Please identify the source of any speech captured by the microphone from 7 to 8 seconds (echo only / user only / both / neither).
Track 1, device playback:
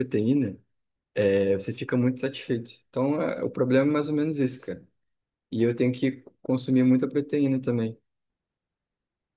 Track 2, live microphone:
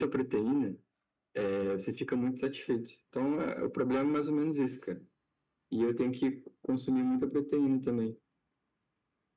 echo only